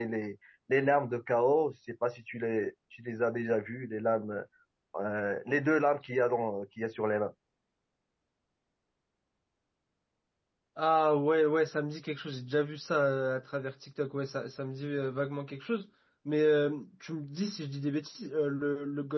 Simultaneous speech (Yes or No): No